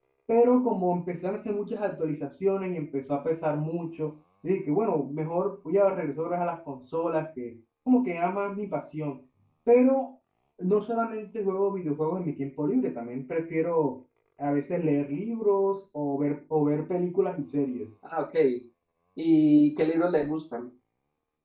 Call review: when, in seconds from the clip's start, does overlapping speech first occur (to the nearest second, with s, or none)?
none